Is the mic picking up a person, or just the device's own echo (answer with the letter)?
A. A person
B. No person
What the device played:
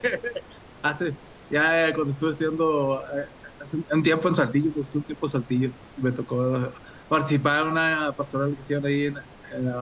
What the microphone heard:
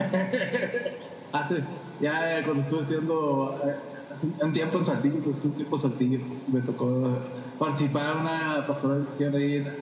B